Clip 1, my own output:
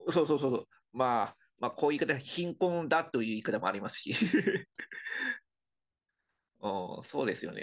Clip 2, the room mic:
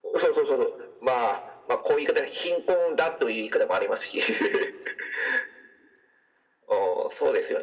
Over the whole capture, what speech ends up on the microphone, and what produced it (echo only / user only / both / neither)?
echo only